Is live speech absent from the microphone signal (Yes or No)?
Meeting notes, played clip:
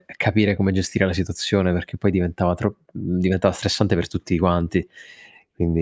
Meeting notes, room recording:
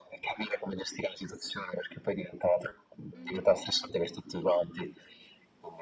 No